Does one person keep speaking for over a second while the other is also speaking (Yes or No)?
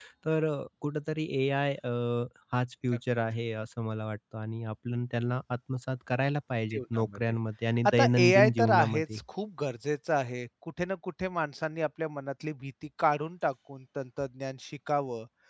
Yes